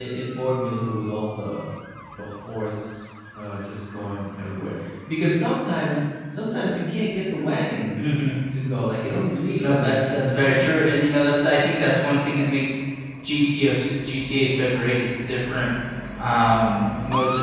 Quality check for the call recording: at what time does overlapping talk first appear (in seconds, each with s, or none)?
9.6 s